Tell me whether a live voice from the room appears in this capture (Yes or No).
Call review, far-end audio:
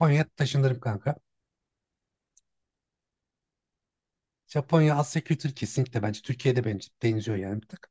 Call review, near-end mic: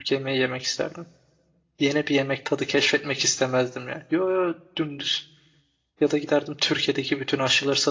Yes